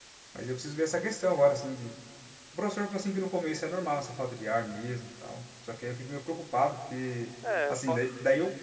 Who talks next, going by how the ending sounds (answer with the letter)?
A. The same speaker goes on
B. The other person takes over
A